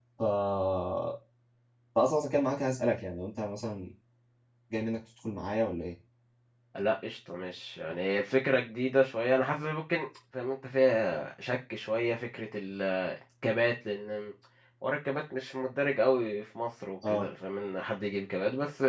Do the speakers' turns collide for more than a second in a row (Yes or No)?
No